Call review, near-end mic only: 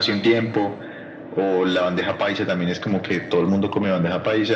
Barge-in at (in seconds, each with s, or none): none